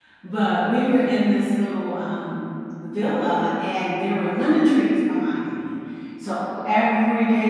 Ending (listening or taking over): listening